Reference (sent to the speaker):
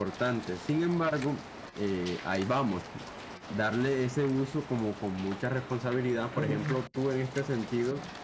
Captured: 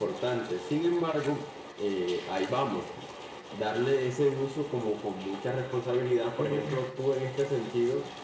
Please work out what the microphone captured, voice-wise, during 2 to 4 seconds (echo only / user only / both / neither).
echo only